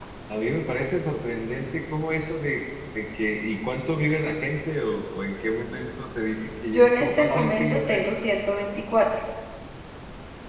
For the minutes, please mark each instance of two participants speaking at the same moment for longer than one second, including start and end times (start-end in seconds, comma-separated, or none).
6.7-8.0